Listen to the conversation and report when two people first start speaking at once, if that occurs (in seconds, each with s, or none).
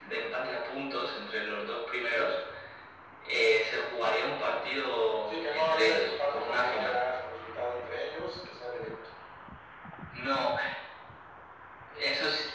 5.3 s